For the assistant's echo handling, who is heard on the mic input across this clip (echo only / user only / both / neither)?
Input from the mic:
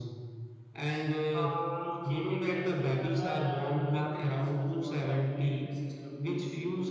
both